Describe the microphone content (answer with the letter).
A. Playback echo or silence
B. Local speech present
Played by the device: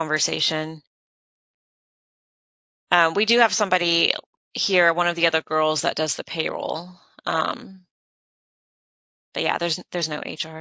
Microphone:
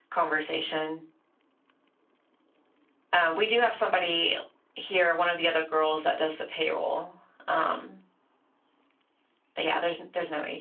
A